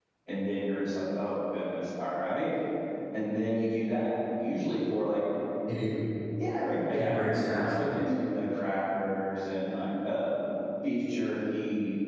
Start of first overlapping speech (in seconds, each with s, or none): 6.9 s